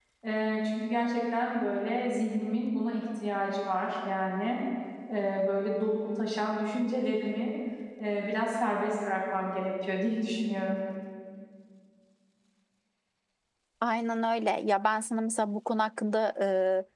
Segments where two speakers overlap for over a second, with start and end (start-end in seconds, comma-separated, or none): none